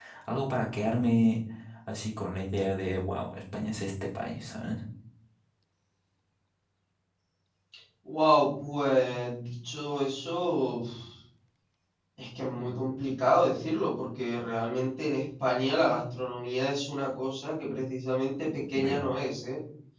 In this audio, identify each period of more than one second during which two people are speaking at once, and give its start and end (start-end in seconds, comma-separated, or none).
none